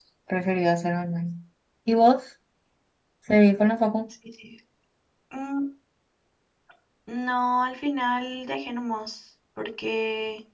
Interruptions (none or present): none